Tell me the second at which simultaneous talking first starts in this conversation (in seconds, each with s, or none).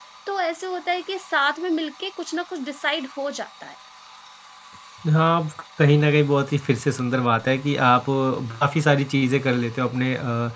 none